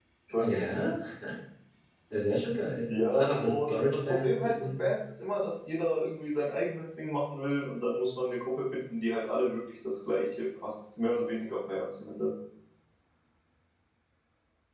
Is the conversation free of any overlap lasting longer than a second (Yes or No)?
No